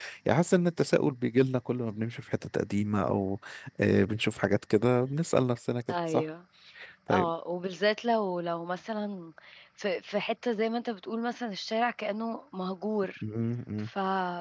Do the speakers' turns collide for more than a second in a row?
No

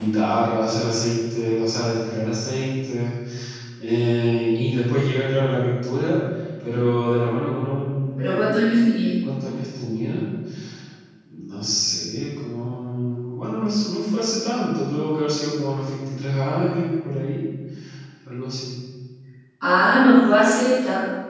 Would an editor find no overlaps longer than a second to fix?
Yes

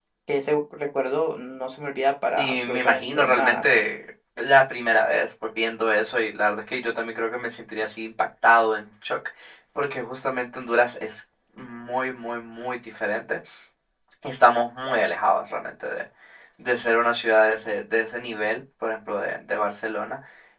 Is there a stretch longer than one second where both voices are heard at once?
Yes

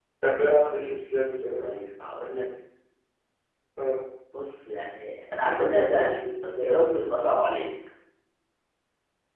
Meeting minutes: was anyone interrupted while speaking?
Yes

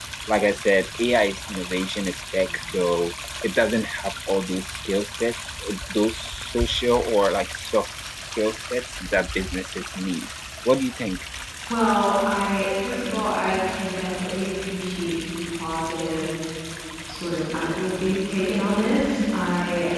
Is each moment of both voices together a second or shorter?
Yes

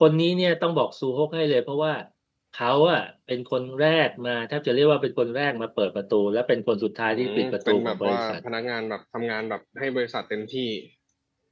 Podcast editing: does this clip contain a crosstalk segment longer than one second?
Yes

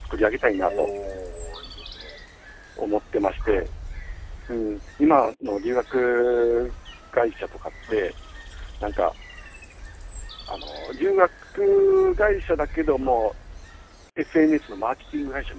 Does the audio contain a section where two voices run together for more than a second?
No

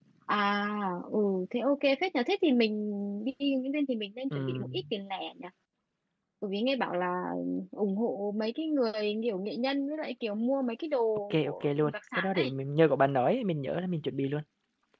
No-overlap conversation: No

